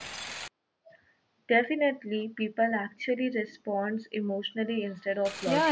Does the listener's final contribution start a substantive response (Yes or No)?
Yes